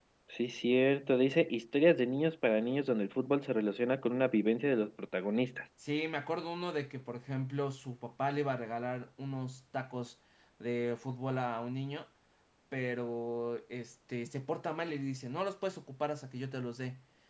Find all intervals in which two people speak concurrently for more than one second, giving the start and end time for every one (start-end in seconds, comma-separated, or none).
none